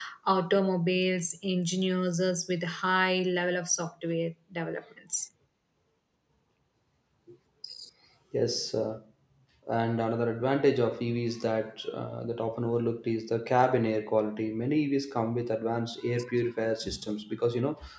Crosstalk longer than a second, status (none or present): none